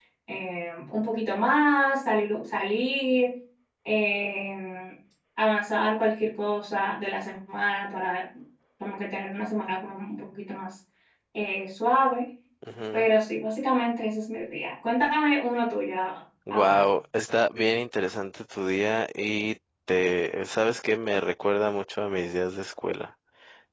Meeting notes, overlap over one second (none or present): none